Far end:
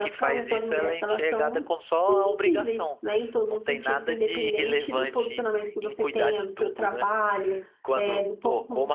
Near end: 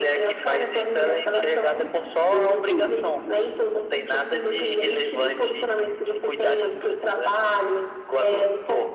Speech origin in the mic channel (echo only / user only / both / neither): echo only